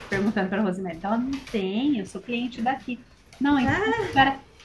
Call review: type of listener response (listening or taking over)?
listening